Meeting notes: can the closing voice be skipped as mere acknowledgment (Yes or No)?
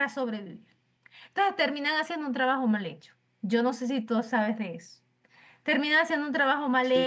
Yes